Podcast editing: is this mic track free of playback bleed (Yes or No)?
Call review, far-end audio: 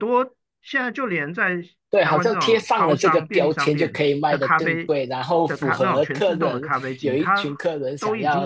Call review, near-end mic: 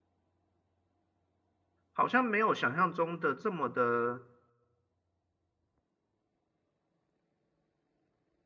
Yes